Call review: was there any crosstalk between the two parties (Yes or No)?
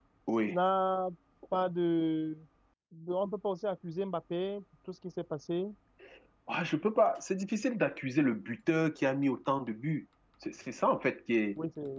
No